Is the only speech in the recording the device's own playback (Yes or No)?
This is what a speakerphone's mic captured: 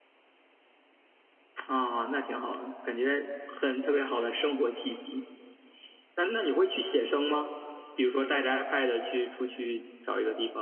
No